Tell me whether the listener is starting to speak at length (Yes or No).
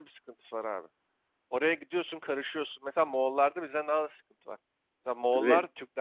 No